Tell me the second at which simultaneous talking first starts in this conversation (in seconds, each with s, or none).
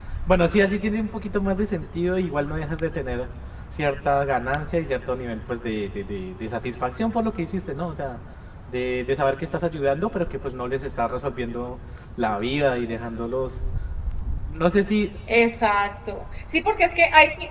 none